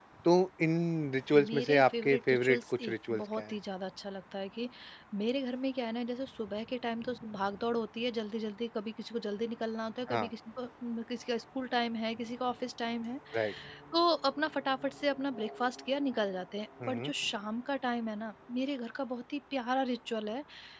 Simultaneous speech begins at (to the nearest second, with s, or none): 1 s